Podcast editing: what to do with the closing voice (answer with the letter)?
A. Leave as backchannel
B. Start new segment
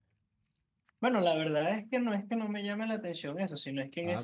A